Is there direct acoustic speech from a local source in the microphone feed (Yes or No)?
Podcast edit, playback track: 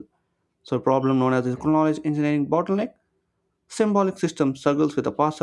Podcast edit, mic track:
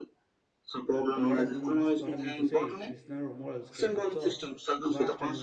Yes